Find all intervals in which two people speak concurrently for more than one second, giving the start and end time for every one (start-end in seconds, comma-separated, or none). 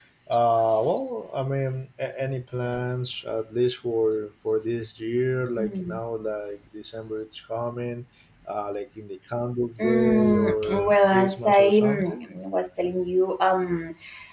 9.8-12.2